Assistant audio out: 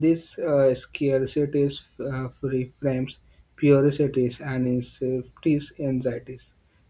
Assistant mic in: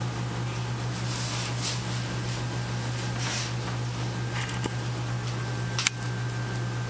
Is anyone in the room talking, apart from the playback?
No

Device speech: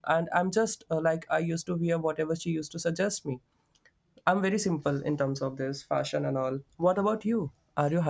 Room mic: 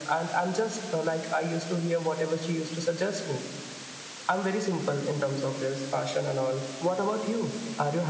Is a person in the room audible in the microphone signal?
No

